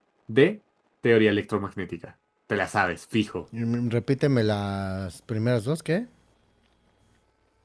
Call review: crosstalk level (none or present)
none